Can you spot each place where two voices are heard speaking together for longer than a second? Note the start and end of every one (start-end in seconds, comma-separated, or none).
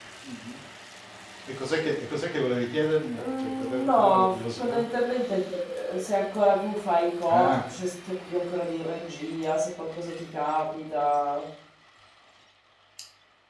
3.2-4.8